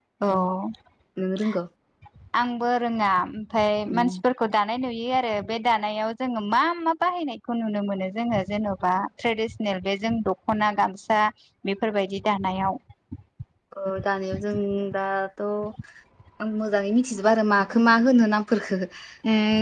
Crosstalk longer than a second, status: none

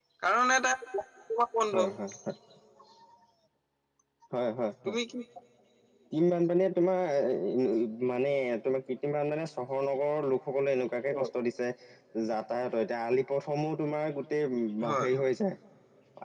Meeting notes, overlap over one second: none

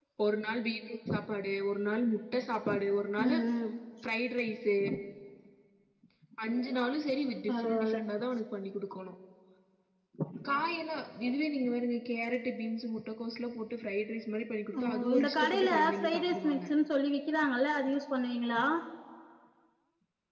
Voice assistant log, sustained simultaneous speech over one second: present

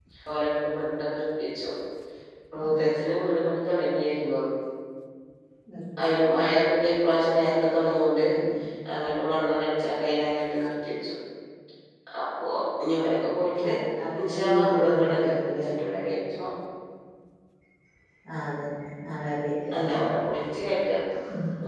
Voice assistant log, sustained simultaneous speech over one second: present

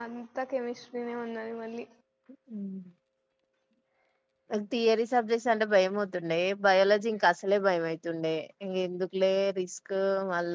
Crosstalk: none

